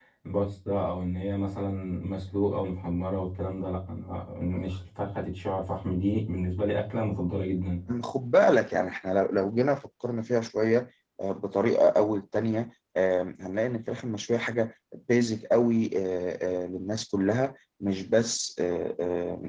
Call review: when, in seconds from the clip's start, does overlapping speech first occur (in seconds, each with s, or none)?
none